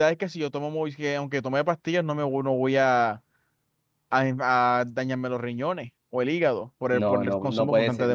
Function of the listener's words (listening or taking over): taking over